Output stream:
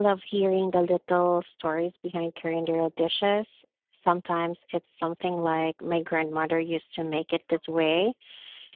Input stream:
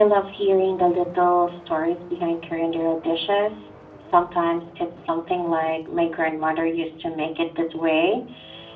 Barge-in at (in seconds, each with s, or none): none